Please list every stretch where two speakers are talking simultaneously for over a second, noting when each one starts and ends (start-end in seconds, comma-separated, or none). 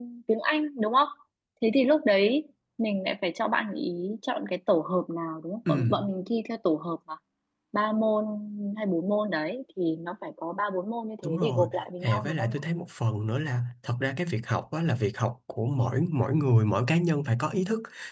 11.2-12.5